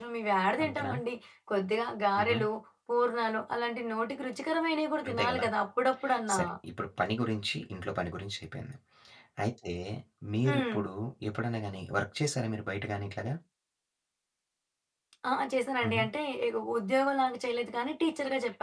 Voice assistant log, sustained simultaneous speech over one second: none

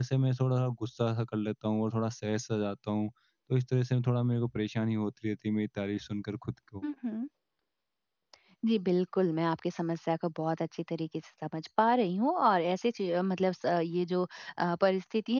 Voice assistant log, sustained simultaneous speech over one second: none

